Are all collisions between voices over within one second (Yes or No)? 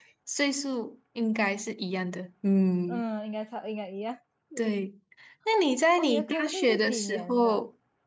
No